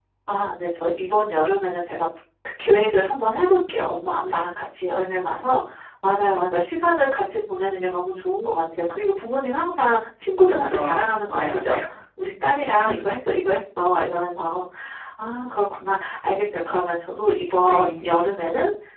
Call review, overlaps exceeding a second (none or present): none